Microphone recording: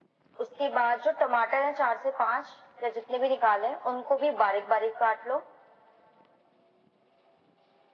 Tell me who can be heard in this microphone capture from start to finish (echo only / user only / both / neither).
echo only